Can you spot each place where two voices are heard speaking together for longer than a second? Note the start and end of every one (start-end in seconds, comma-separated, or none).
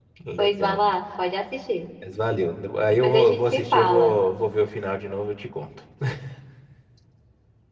2.9-4.2